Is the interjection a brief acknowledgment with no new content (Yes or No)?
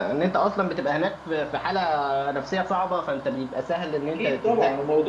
No